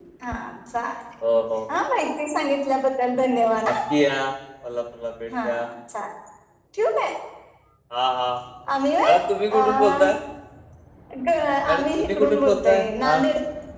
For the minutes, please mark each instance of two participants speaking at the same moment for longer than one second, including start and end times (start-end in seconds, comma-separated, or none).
11.7-13.2